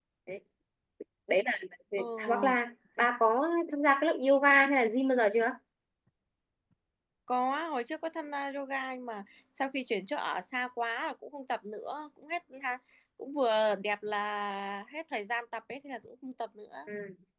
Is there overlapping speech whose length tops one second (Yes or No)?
No